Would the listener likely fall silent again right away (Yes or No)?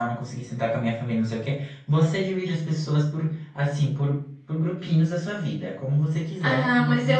No